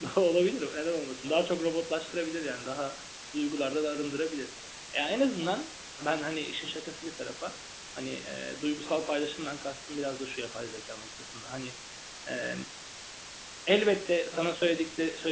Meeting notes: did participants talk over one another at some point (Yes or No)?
No